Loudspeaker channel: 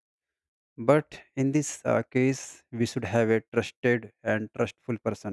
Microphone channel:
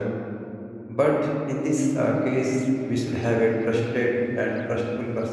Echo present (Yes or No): Yes